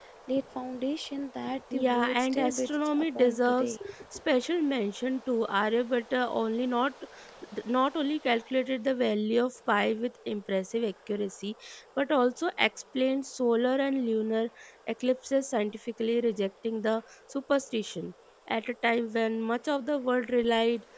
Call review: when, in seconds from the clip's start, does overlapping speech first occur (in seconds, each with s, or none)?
1.7 s